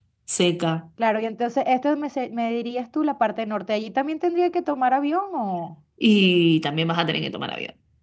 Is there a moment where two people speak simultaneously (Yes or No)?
No